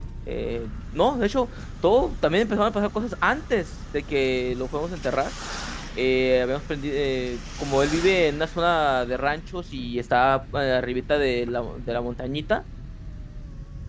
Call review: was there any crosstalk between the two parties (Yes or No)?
No